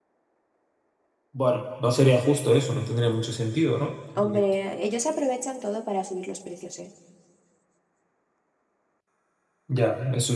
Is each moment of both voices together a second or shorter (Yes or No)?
Yes